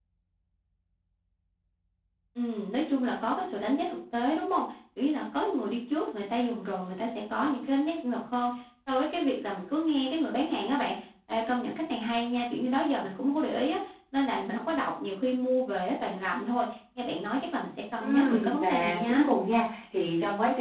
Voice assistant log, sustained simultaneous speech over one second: present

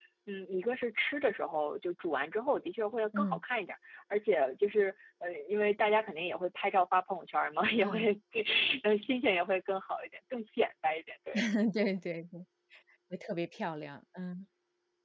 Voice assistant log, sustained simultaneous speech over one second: none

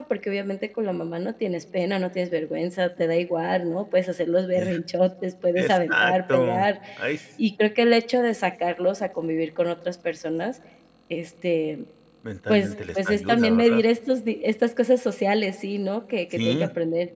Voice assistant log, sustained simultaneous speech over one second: present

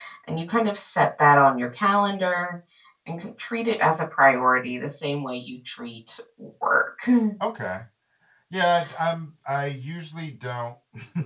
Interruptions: none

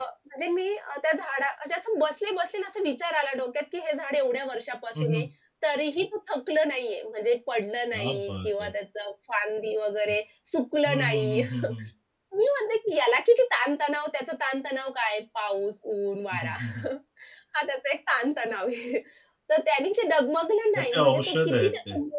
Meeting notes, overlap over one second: present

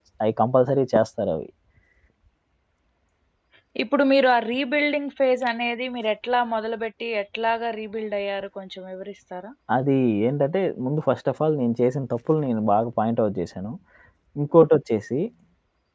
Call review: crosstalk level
none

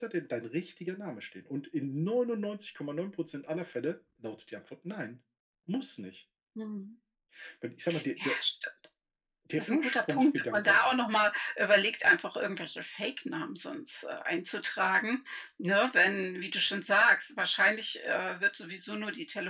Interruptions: present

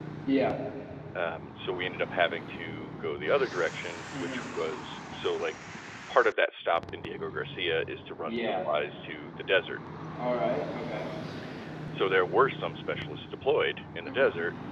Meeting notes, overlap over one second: none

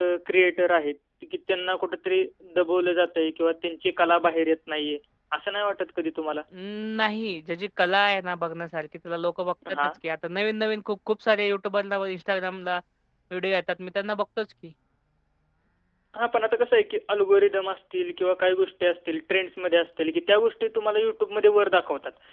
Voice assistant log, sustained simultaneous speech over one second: none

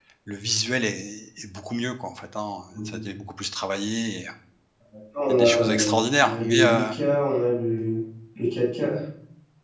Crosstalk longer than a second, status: present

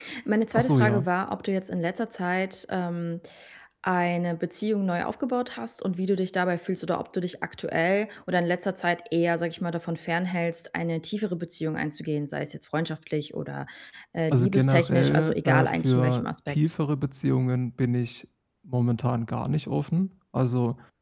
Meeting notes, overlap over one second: present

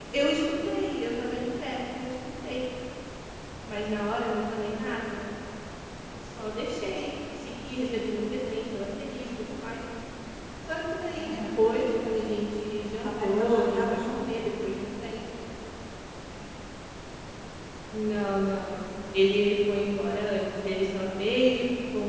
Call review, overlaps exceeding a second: present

